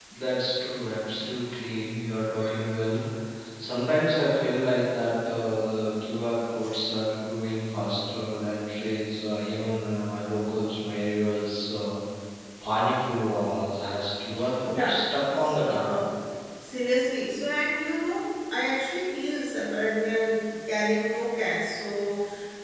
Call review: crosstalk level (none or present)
present